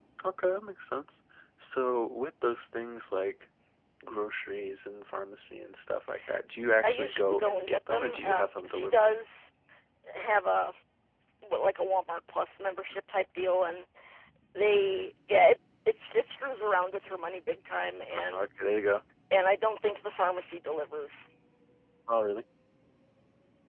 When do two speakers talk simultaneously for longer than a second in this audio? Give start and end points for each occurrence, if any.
6.8-9.0

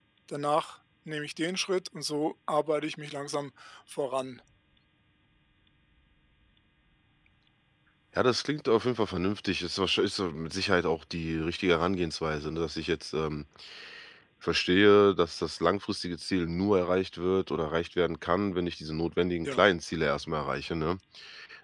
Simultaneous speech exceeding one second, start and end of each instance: none

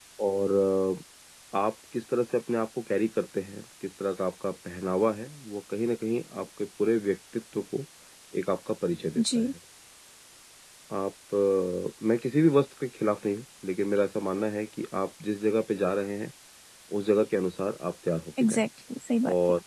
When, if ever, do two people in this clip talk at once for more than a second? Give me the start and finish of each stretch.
none

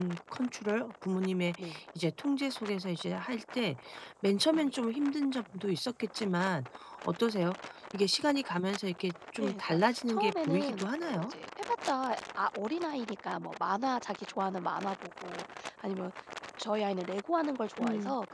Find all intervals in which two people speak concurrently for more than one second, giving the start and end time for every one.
9.4-11.3

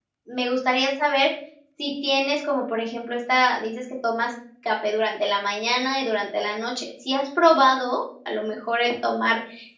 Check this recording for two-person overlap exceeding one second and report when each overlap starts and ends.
none

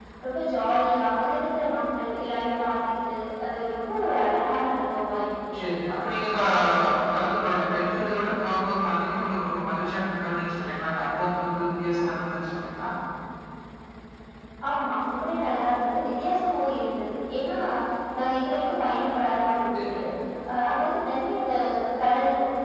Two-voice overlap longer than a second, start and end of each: none

